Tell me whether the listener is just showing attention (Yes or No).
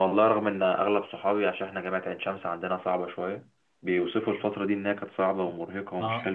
Yes